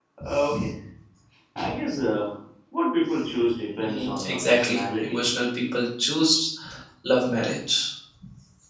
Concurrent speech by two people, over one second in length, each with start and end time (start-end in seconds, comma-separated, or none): 3.8-5.2